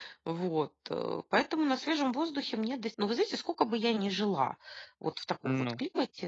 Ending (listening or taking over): listening